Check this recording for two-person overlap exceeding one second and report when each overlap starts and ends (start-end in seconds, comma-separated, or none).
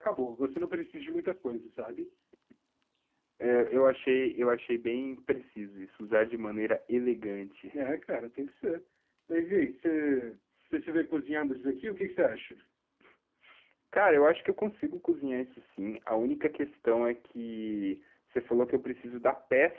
none